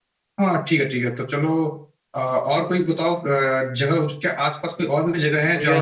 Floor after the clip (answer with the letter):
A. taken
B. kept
A